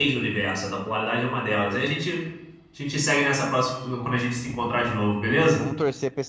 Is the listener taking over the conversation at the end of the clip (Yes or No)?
Yes